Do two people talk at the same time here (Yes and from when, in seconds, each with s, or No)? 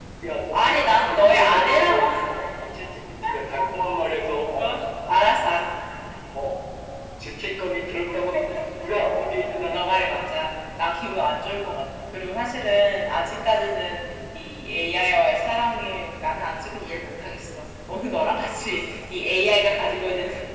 Yes, from 0.5 s